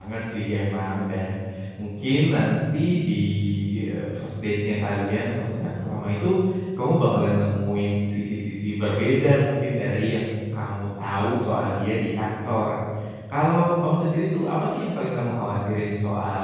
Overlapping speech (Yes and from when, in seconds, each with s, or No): No